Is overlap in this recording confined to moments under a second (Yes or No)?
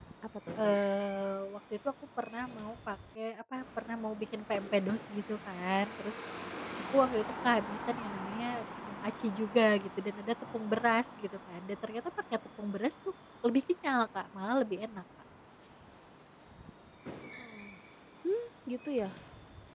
Yes